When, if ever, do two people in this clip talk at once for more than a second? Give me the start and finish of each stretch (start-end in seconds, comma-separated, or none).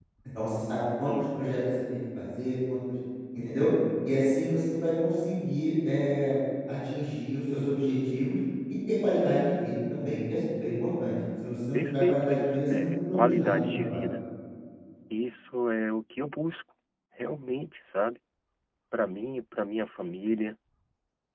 11.7-14.0